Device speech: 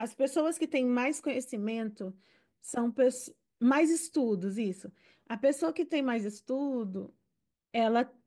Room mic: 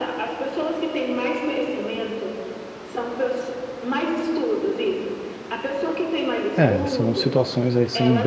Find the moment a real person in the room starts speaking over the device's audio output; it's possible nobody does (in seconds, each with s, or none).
6.5 s